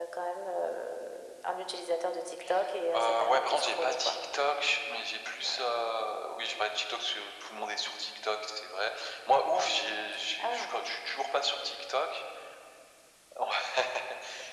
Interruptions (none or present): present